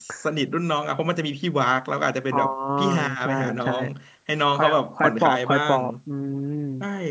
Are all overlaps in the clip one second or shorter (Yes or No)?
No